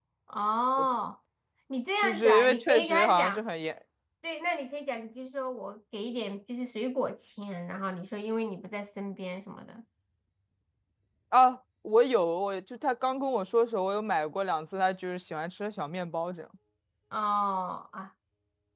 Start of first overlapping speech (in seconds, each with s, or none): 2.0 s